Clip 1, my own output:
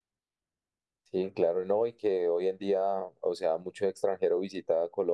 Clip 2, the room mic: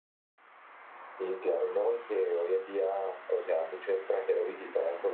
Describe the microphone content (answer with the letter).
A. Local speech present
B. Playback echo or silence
B